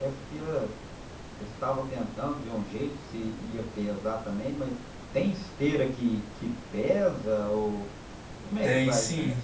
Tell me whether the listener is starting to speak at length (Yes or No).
Yes